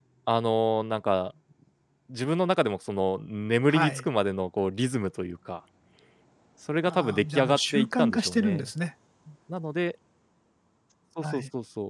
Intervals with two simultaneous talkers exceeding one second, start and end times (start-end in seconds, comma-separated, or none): 6.8-8.7